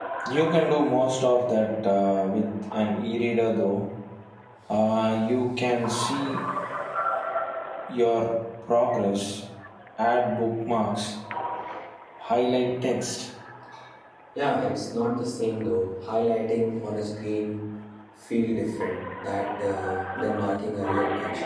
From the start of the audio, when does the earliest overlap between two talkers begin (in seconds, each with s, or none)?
none